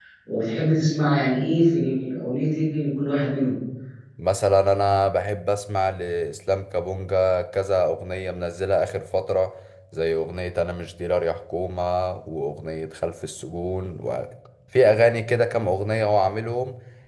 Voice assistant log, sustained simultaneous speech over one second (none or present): none